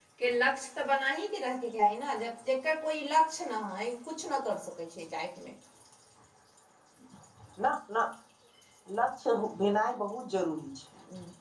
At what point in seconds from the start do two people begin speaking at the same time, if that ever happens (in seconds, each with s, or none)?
none